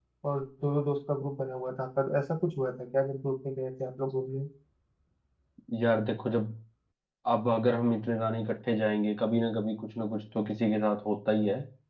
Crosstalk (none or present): none